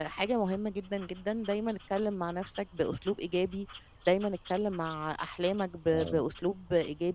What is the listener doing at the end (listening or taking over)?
listening